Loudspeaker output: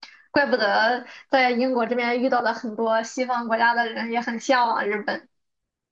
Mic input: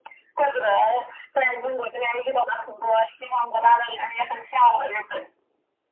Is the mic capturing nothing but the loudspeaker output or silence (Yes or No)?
Yes